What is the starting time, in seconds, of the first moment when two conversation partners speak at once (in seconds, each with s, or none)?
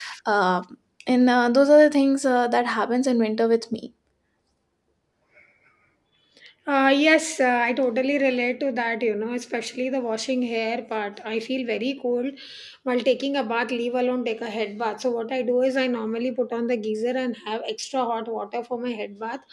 none